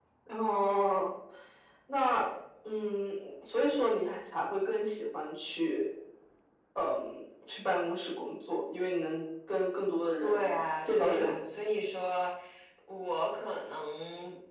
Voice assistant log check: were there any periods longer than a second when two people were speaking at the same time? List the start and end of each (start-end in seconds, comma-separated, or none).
10.2-11.4